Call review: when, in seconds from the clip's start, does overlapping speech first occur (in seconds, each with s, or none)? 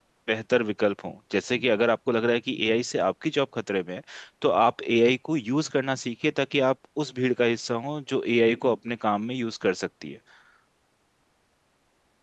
none